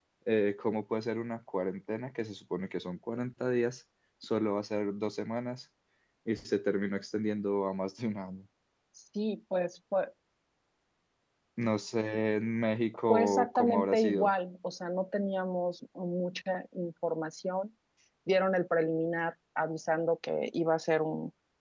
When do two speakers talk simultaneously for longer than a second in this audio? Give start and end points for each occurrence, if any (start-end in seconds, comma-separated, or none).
13.1-14.3